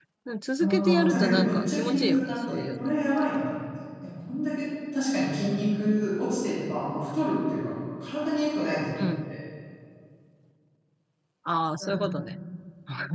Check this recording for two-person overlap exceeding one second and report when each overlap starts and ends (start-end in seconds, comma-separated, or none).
0.6-3.3